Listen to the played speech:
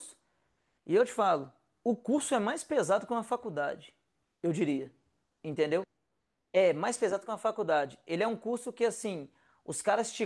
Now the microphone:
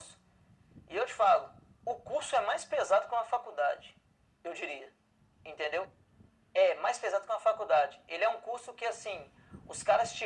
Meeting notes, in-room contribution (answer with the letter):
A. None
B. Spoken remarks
A